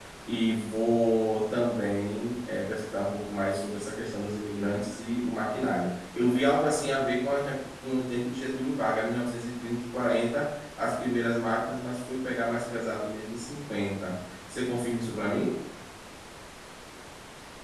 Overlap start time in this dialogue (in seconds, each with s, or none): none